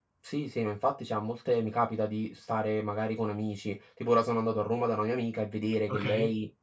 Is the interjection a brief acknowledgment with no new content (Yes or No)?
Yes